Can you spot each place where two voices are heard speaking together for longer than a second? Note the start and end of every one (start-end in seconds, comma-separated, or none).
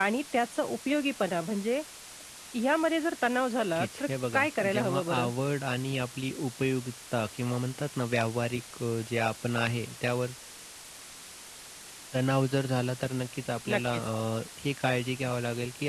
3.8-5.3